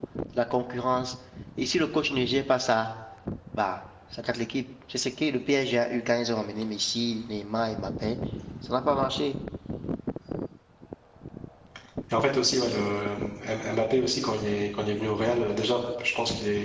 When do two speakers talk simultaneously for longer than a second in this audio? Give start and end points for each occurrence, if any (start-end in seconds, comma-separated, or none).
none